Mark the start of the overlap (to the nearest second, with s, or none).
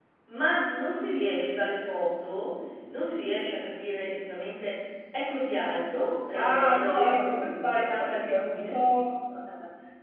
6 s